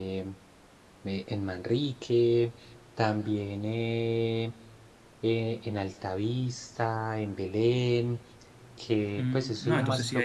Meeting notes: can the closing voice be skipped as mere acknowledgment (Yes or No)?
No